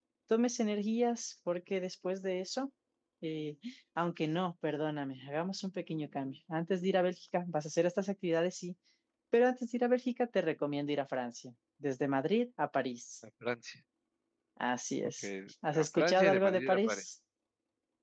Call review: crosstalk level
present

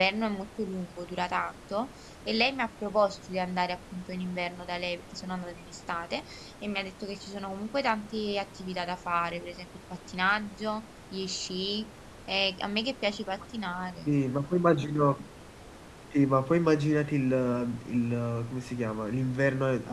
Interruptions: none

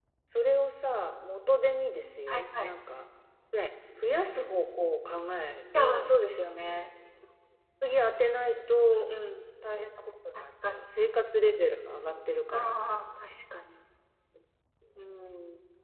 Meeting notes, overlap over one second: none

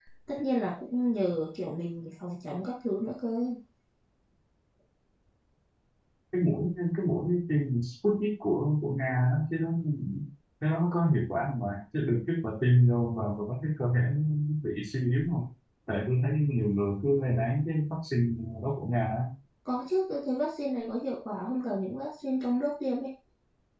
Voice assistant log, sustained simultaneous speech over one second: none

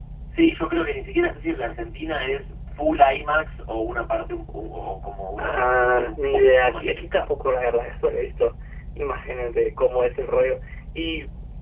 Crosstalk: present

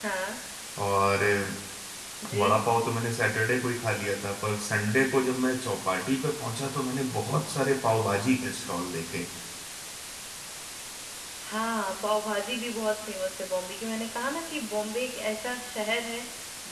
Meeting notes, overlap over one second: none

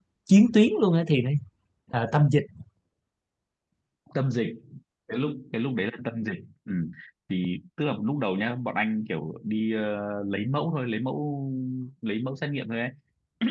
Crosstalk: none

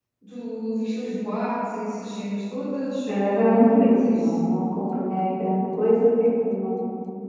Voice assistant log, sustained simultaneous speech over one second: present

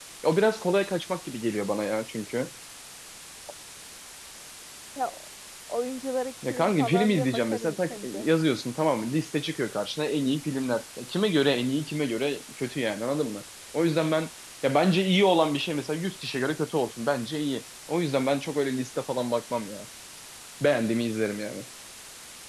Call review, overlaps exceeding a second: present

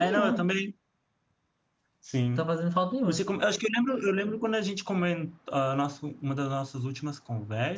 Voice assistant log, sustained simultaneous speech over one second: none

